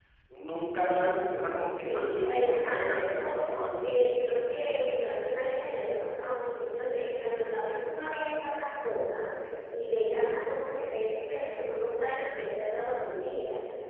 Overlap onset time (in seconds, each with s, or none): 1.9 s